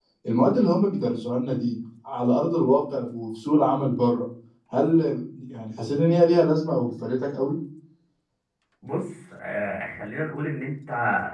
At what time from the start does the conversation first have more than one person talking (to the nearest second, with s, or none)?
none